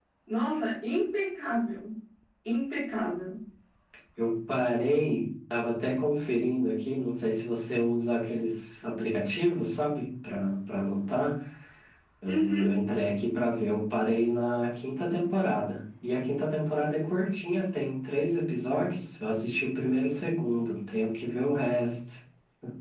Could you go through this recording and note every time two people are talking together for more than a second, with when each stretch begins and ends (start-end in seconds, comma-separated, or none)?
none